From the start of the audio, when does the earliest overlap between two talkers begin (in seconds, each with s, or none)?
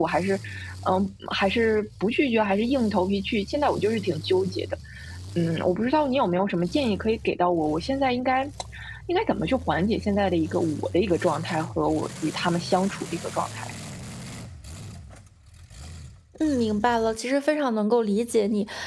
none